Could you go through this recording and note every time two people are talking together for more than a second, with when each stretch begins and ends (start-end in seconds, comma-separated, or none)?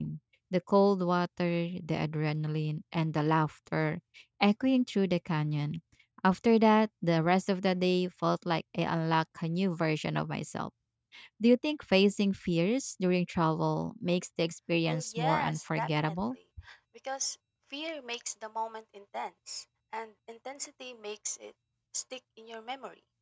14.9-16.1